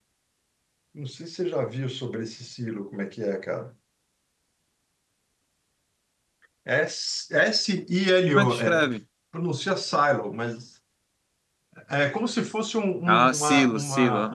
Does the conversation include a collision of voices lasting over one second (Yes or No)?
Yes